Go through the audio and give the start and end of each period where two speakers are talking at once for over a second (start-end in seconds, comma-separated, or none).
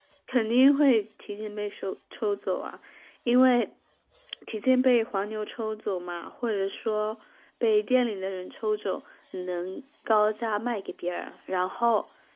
none